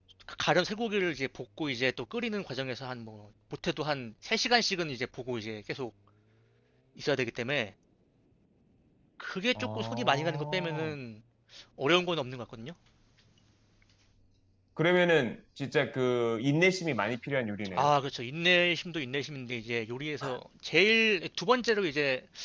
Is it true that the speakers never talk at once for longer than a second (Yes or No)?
No